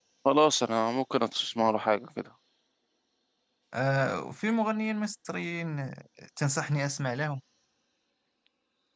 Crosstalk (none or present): none